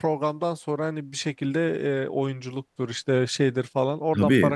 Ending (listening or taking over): taking over